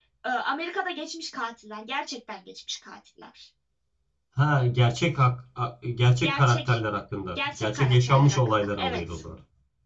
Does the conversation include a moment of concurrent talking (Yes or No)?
Yes